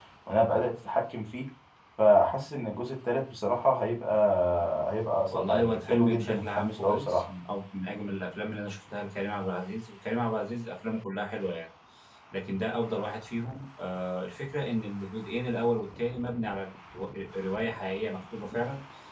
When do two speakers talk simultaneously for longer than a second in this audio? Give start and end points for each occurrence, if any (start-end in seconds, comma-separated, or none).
5.3-7.2